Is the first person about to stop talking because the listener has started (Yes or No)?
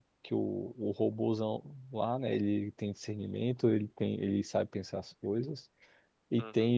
No